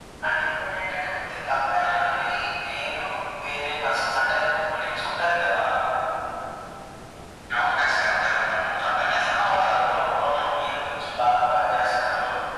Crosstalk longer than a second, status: none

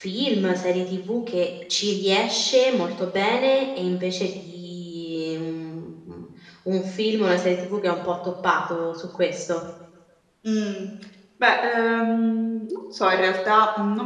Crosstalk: none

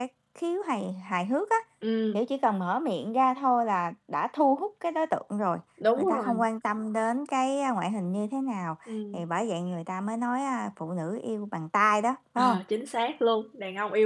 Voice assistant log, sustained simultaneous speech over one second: none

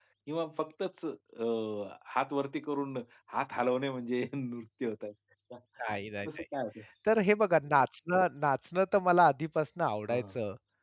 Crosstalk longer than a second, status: none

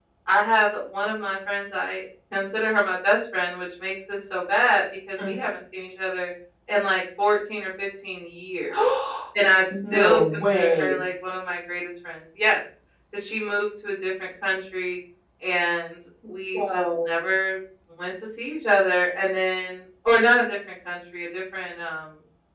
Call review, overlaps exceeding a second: present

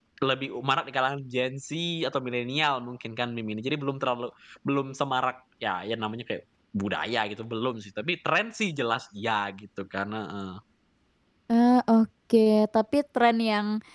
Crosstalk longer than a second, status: none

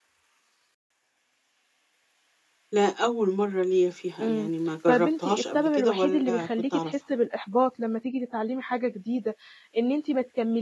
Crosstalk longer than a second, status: present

